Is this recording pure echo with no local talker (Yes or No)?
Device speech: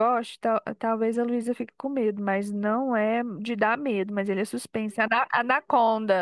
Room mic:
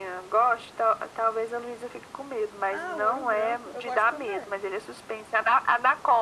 No